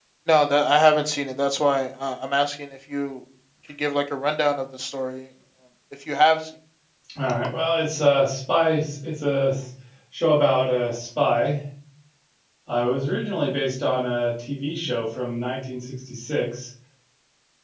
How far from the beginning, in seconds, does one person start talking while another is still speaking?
none

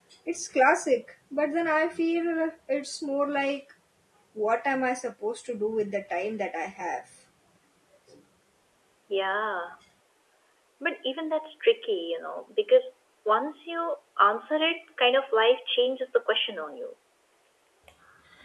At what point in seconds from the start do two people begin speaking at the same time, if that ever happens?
none

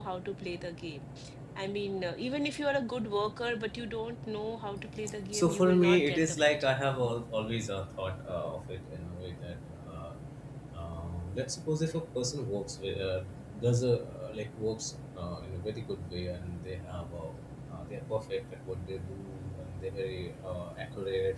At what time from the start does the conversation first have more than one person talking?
5.3 s

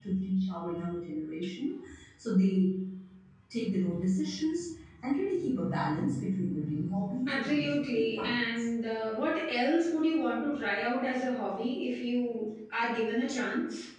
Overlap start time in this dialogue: 7.2 s

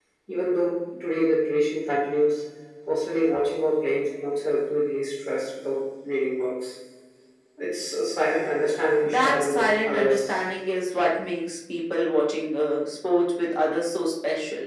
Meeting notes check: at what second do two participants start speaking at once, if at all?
9.0 s

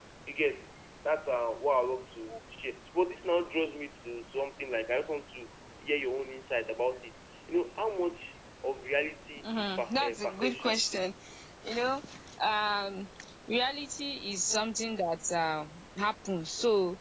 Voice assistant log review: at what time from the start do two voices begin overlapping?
9.4 s

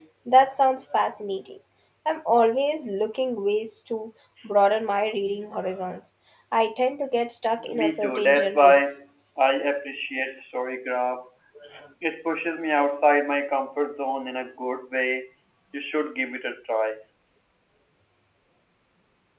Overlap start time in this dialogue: 7.6 s

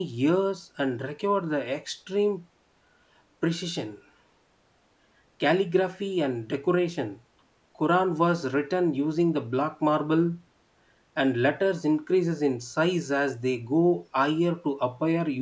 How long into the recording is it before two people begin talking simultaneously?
none

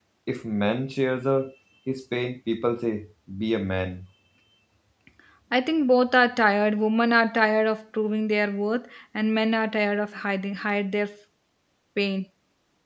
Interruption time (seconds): none

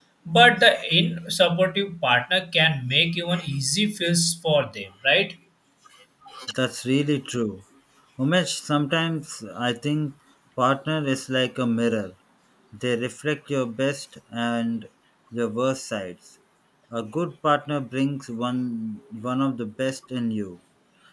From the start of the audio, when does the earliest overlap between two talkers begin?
none

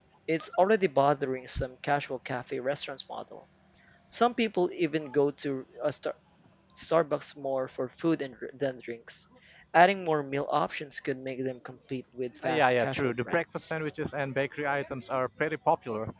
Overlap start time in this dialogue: 12.4 s

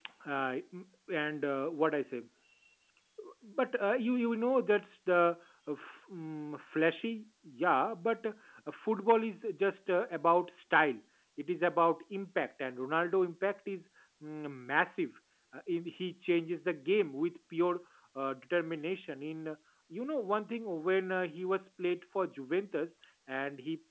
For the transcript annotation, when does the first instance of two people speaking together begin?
none

